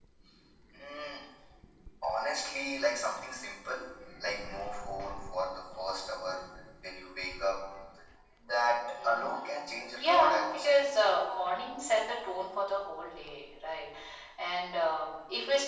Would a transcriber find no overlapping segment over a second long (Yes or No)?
No